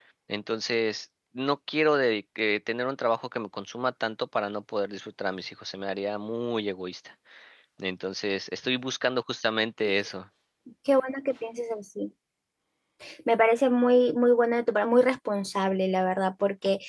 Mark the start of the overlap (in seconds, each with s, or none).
none